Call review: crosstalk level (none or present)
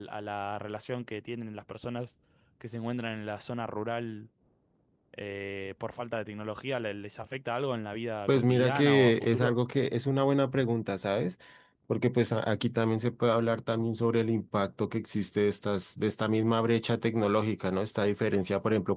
present